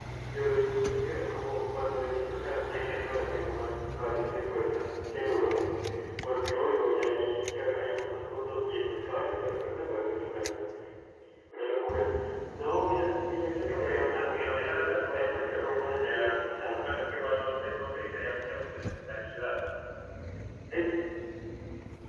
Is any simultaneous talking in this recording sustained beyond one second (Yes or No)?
Yes